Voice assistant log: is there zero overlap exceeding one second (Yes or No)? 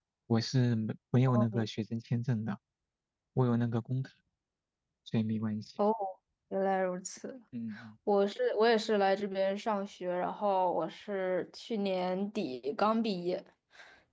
Yes